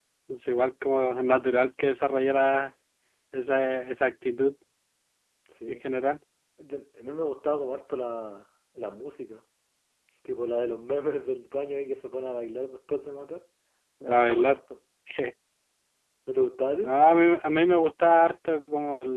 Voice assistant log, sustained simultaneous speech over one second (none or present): none